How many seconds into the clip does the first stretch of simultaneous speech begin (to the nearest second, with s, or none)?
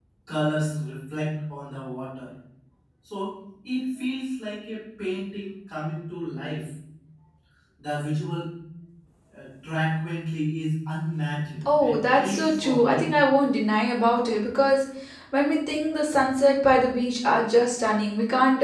12 s